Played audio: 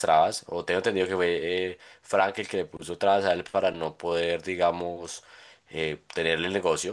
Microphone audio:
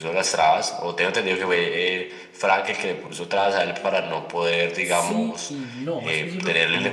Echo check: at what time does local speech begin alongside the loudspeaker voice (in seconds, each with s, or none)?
4.8 s